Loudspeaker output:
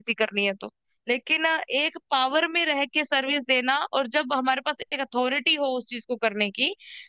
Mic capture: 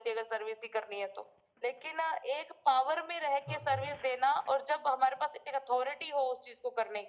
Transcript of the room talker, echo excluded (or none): हाँ हाँ